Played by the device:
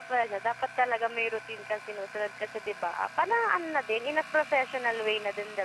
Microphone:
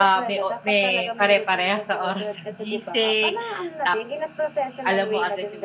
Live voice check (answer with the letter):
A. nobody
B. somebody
B